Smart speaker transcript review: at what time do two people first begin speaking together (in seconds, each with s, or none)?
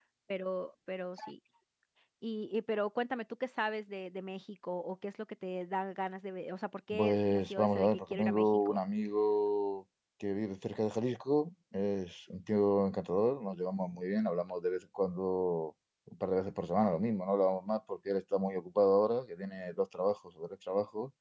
6.9 s